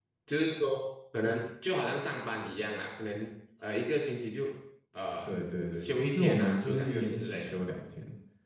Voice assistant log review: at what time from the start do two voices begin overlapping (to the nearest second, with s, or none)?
6 s